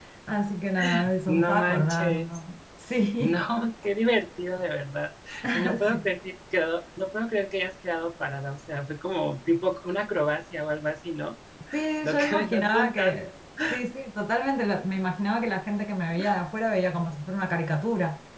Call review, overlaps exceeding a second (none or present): present